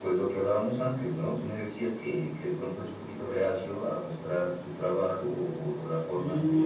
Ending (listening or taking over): taking over